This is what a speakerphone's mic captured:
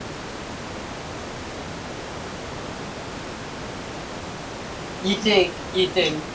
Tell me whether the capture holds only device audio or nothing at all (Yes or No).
No